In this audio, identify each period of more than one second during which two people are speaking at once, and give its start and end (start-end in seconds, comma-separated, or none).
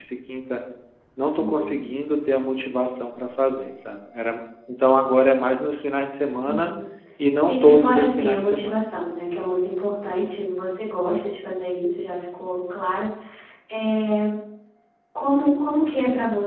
7.5-8.9